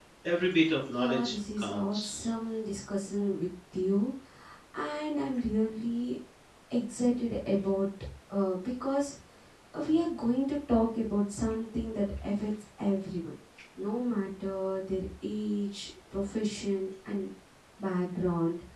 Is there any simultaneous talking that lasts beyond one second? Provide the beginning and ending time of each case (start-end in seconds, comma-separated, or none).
0.9-2.1